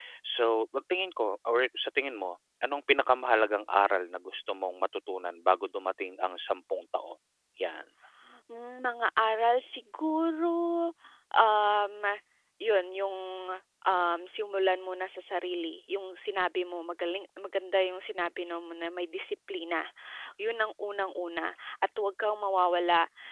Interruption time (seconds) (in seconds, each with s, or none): none